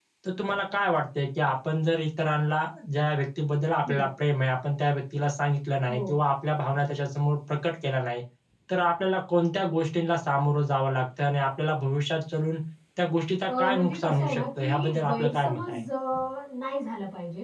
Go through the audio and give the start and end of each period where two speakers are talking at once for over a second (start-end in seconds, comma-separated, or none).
13.5-15.8